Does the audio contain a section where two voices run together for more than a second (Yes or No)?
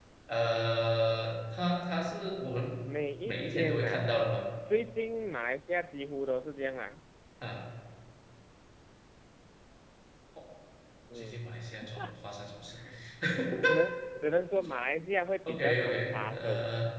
Yes